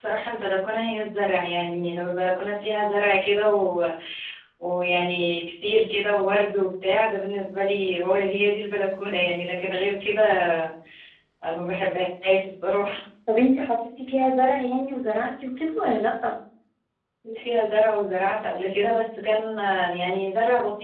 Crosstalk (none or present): none